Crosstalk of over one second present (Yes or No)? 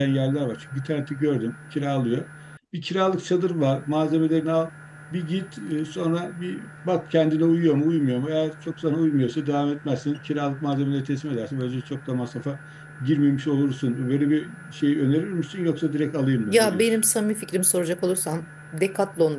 No